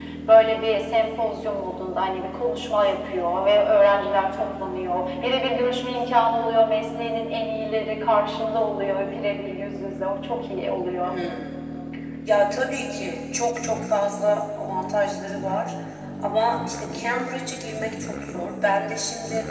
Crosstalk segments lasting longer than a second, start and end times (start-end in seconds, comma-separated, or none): none